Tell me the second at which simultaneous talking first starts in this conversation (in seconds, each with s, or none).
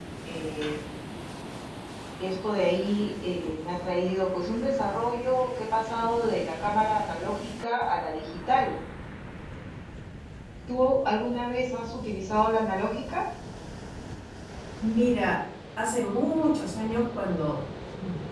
none